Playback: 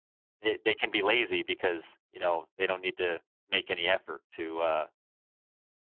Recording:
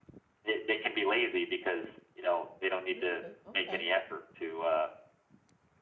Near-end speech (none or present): present